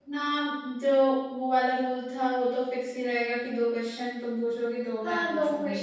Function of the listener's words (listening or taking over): taking over